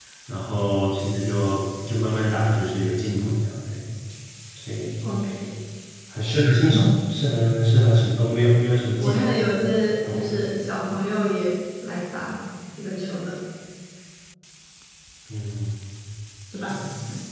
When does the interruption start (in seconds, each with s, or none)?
9.0 s